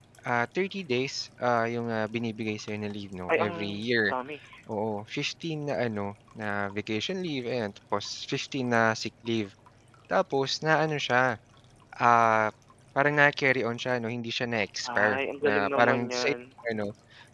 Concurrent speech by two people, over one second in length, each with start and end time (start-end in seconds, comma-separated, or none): 15.0-16.3